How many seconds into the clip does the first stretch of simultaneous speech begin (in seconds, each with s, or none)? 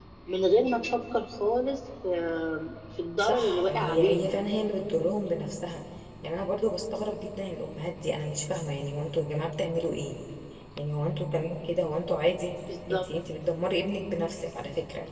3.2 s